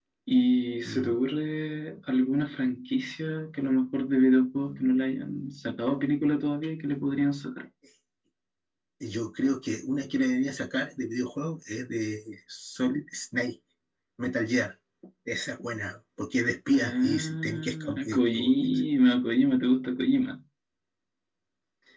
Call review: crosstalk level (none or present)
present